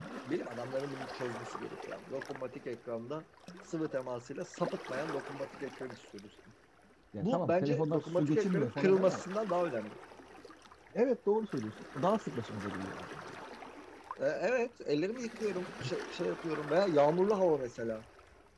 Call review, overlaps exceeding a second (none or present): present